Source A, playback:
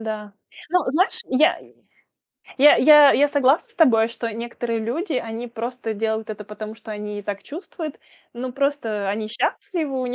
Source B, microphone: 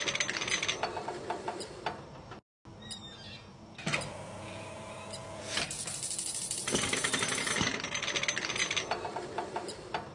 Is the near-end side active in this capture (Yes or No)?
No